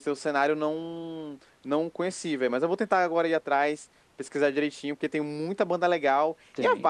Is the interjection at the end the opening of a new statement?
No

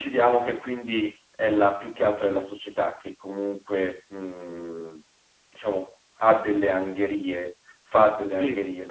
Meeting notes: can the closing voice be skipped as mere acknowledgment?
Yes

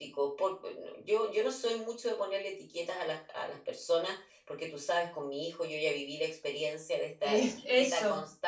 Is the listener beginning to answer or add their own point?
No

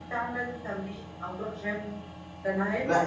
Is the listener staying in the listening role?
No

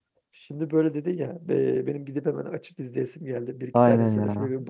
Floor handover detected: Yes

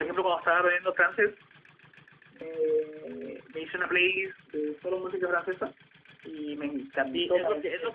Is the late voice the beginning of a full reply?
Yes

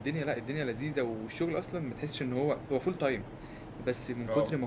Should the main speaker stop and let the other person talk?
No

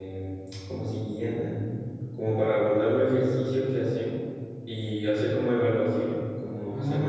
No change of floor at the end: No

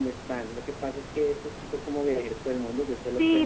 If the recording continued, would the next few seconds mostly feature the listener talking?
Yes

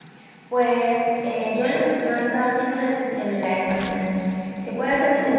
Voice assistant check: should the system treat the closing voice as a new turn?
No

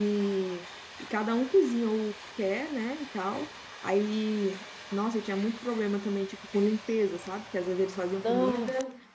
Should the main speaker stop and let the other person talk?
No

